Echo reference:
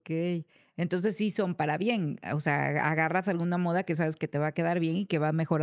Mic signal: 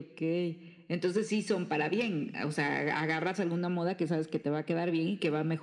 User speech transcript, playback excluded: none

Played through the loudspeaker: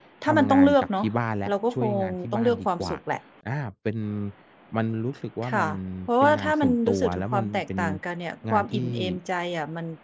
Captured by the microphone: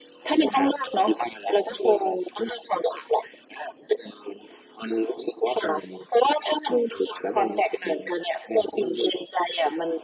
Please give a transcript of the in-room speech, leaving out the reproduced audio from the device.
none

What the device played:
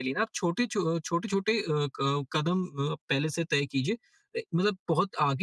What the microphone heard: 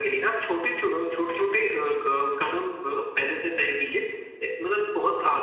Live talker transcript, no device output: none

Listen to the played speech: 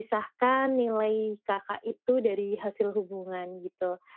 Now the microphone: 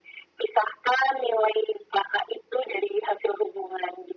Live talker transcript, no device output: none

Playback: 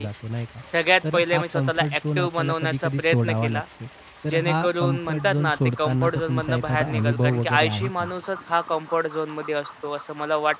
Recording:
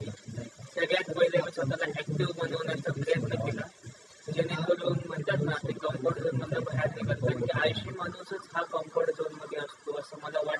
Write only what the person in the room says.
none

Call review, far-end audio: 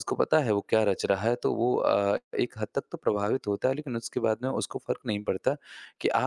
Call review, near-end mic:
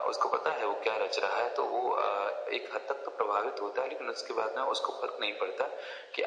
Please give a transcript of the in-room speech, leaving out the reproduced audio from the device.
none

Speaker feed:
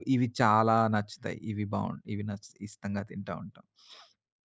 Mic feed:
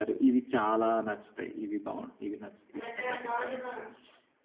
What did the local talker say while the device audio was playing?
రకరకాలుగా.

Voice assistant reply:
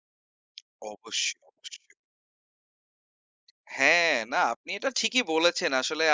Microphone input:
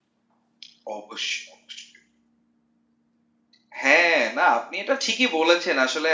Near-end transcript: none

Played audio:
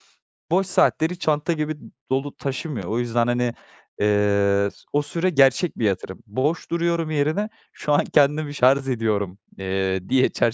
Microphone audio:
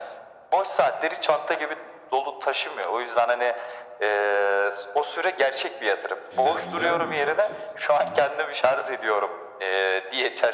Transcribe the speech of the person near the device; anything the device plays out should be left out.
Güzel güzel bir bakış açısı. Hı hı.

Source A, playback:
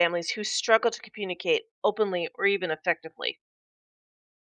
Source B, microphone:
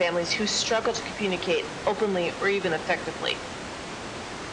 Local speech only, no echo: none

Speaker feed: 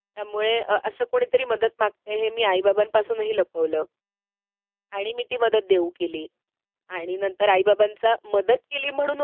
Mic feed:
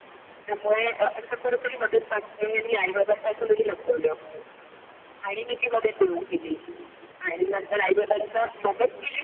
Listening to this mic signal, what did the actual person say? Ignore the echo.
none

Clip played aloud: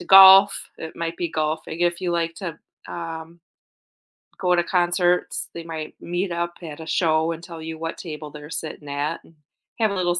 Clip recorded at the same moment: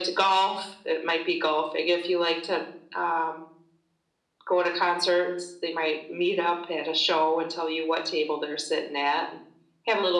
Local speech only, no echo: none

